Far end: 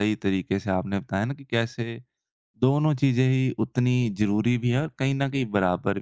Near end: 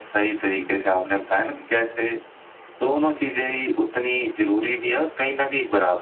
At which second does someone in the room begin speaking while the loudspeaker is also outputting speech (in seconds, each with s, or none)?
none